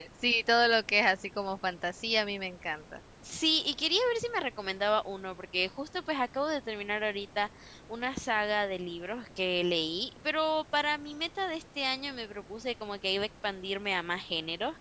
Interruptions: none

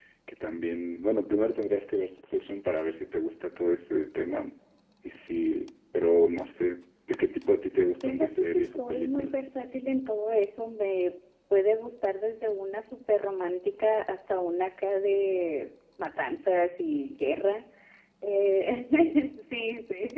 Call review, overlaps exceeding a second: present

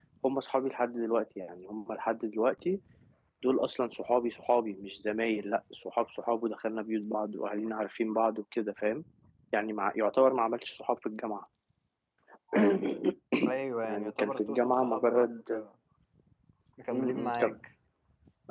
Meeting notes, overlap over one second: present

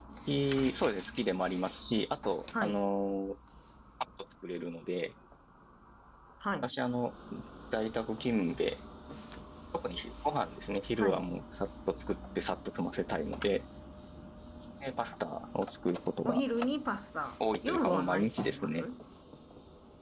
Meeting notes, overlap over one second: present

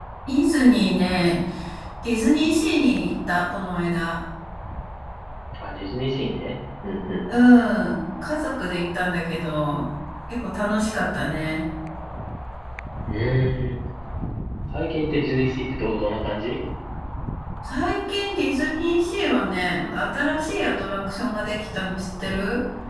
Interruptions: none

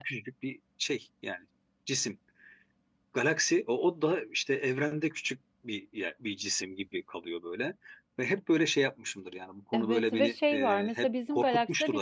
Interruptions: present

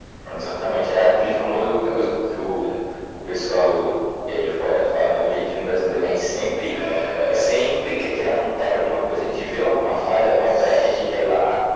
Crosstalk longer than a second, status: present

